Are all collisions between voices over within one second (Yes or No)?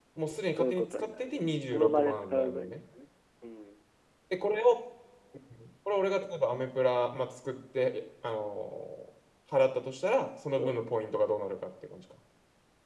No